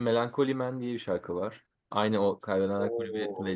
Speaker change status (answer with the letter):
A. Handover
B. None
A